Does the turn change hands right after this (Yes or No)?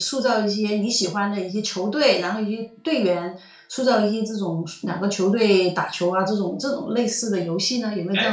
Yes